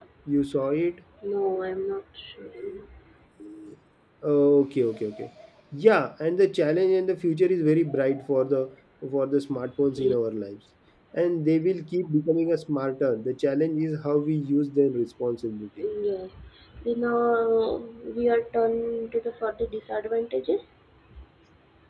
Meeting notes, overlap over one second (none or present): none